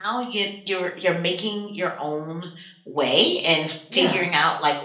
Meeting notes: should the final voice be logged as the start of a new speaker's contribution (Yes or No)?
No